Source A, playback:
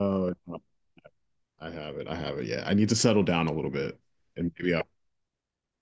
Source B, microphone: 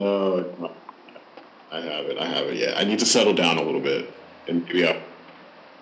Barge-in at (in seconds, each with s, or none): none